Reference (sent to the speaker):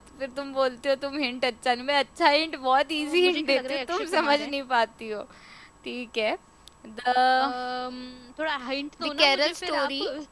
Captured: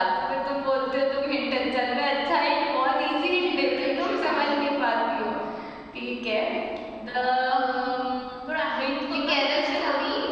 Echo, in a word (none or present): present